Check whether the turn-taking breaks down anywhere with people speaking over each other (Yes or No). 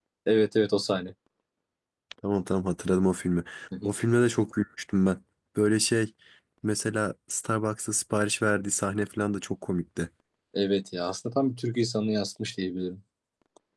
No